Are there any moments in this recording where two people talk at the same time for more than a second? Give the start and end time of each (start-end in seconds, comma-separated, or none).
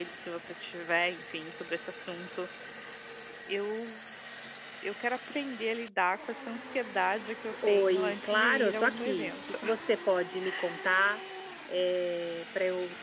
7.7-9.6